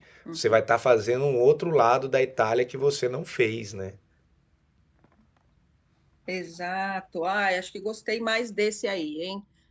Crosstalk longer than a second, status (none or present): none